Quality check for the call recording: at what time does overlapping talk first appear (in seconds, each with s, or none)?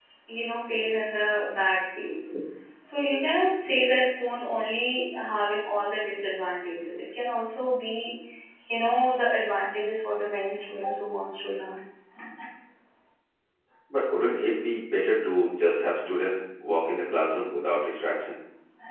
none